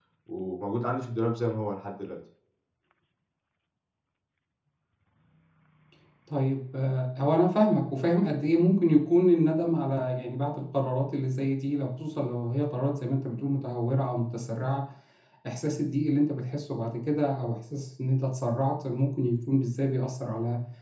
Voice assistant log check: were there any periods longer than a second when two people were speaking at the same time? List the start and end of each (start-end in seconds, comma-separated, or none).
none